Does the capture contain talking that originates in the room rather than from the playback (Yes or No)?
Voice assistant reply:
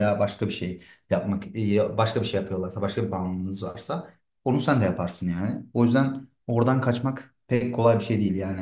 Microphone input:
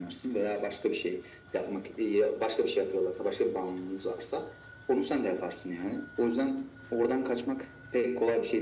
No